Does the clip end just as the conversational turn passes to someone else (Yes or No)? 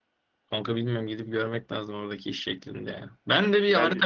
No